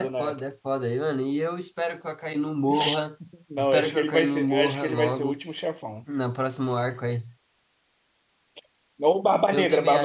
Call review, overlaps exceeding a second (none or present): present